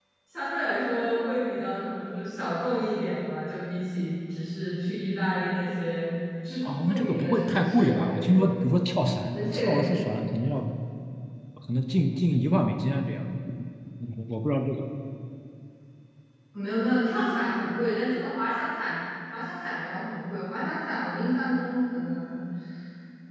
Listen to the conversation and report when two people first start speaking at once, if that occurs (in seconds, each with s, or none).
6.7 s